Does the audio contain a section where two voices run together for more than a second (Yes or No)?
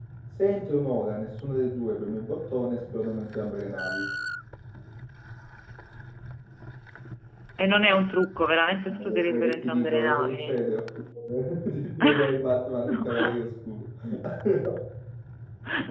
Yes